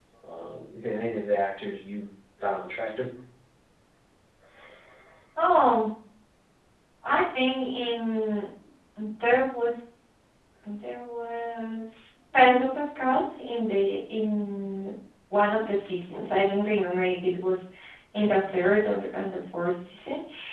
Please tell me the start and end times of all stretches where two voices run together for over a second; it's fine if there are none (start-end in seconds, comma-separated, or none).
none